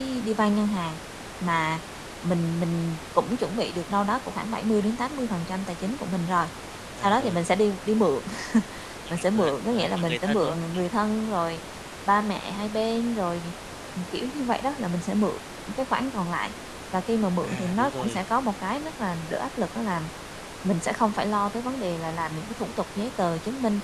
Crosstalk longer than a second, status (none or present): present